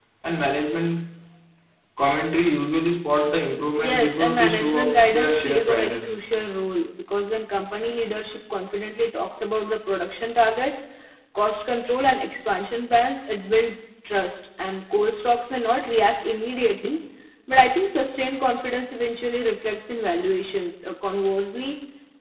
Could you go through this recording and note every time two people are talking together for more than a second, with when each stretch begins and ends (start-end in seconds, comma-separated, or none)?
3.8-6.2